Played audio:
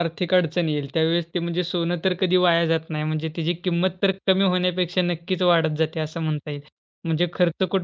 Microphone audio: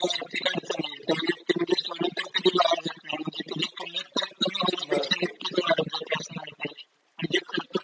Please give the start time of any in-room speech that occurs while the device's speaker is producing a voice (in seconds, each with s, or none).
4.9 s